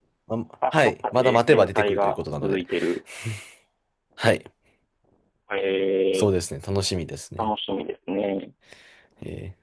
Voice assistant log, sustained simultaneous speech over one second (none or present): present